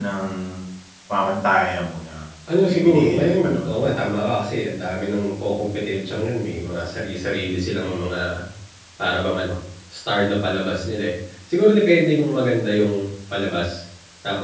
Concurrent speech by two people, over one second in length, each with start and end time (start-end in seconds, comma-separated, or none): 2.7-4.0